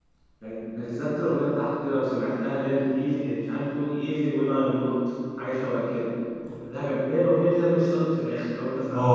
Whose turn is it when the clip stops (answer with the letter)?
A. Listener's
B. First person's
A